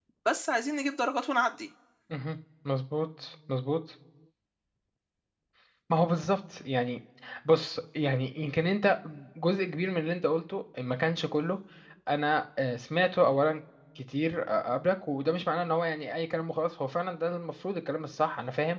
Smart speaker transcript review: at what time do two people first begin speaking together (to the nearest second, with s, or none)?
none